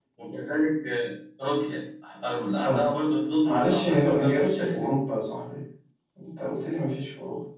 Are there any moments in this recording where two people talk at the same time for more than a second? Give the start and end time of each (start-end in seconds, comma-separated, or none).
3.4-5.0